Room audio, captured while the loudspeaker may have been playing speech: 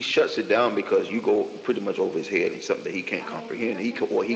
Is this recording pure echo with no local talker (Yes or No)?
No